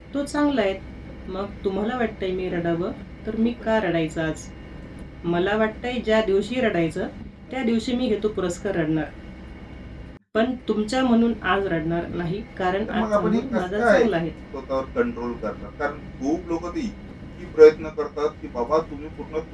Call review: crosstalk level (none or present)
present